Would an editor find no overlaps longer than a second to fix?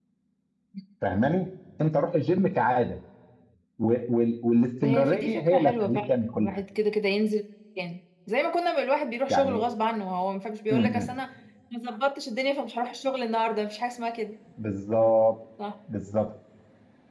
No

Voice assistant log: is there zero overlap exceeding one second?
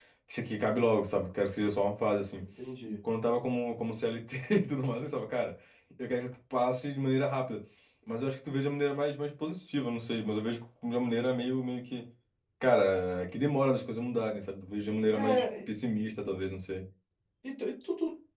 Yes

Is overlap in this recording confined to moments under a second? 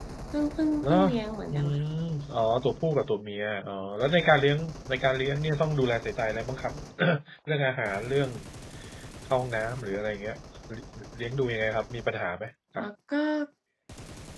Yes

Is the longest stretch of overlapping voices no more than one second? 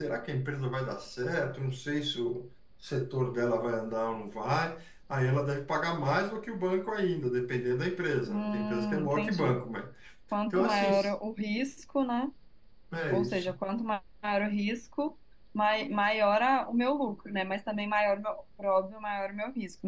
No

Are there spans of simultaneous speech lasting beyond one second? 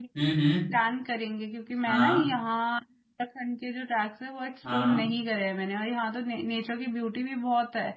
No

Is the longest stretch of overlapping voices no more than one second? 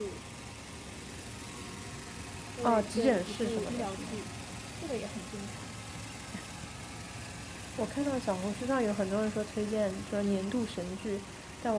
No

